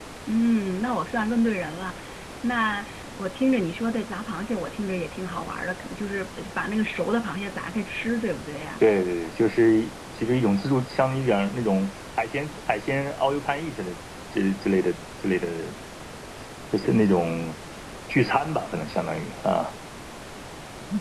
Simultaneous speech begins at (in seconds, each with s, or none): none